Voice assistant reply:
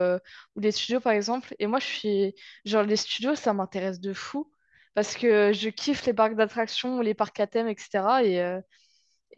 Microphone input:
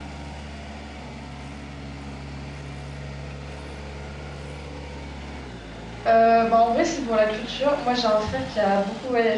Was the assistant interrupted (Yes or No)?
Yes